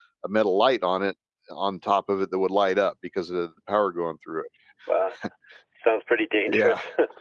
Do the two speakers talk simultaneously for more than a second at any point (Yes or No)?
No